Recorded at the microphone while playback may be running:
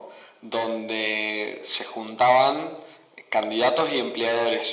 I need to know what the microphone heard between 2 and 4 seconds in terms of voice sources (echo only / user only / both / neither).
echo only